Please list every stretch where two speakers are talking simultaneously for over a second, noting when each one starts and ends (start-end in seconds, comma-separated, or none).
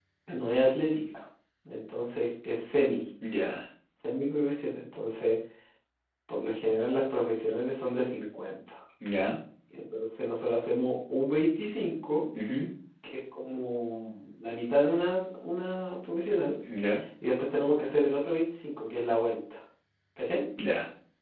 none